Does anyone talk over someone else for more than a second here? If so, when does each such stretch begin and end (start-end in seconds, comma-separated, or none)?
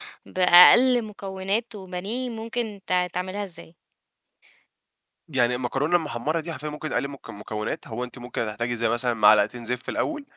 none